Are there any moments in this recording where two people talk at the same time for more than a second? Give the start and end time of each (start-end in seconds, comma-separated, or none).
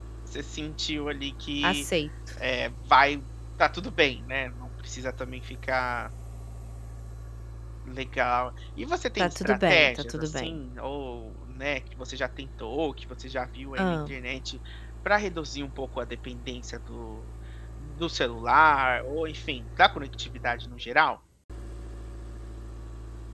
9.2-10.6